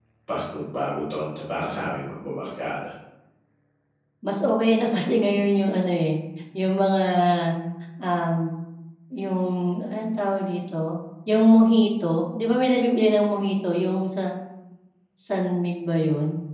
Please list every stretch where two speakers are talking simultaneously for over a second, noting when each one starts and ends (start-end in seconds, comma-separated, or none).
none